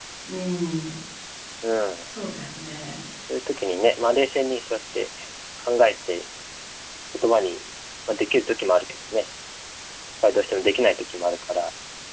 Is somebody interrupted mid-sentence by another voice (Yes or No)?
No